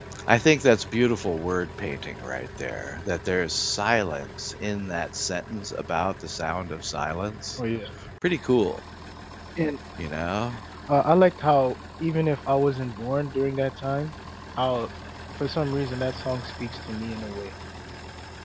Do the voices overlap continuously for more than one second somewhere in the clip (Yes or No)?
No